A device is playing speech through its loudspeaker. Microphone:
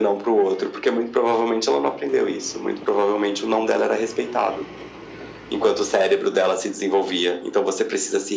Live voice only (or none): none